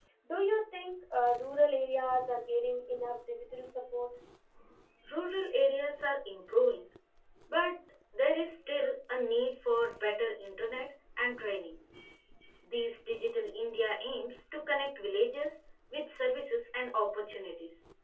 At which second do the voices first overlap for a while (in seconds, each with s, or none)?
none